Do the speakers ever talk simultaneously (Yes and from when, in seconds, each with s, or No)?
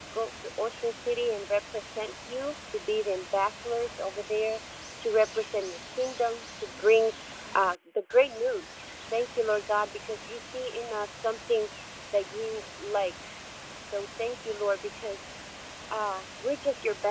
No